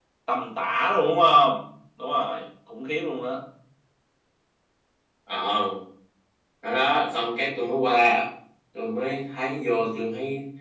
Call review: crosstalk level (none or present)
none